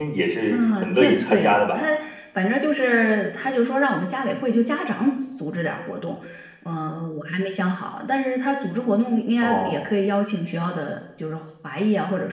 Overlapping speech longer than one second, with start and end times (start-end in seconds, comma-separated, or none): 0.5-1.9